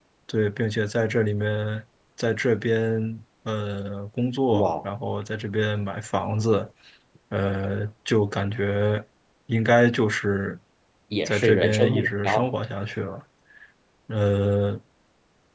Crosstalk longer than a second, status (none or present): present